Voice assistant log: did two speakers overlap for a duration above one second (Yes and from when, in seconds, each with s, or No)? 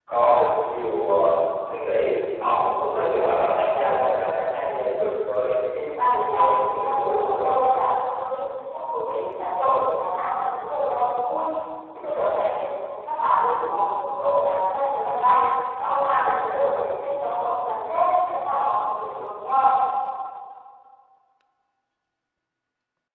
Yes, from 6.0 s